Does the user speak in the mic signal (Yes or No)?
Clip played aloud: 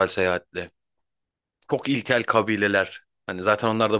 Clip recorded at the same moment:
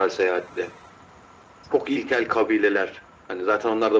No